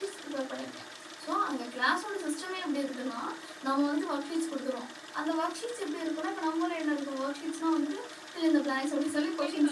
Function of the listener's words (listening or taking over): taking over